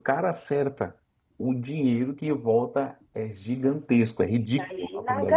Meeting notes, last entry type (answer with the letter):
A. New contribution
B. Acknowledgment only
A